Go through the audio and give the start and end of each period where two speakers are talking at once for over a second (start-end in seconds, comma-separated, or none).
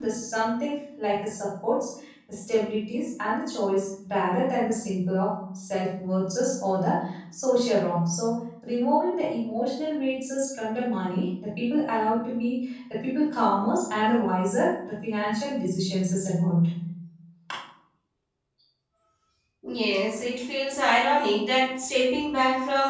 none